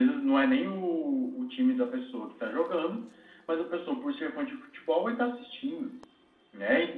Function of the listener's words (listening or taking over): listening